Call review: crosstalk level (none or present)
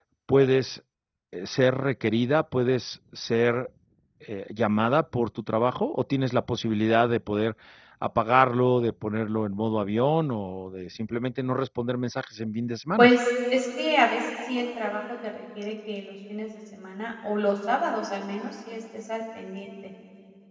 none